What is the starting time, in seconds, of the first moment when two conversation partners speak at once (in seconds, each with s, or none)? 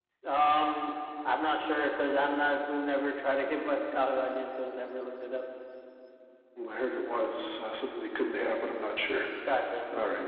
none